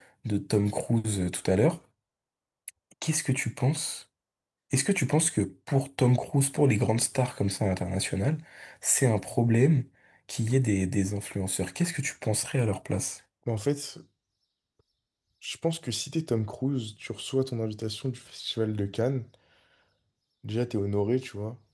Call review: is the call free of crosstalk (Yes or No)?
Yes